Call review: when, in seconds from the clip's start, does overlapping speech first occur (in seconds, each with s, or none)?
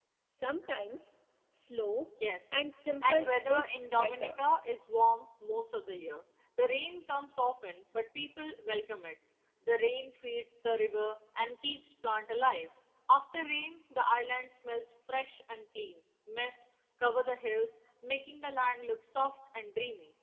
3.0 s